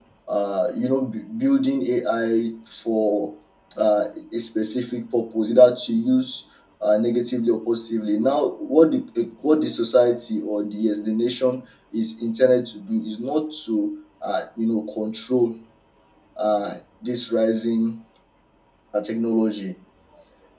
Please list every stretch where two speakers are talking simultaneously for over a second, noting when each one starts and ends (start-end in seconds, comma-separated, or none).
none